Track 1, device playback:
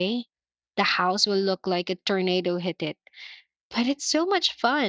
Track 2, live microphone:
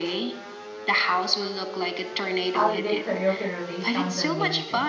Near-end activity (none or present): present